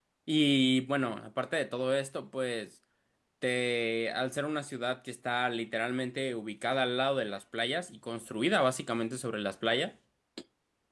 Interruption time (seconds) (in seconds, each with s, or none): none